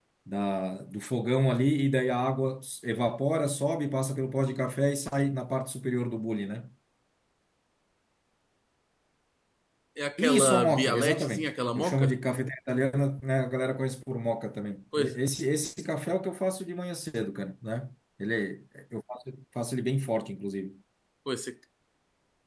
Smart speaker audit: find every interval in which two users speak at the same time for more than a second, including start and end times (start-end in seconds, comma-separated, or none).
10.2-12.2